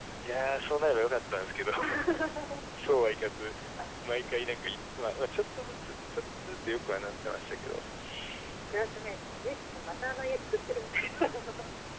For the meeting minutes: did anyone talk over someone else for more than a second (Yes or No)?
No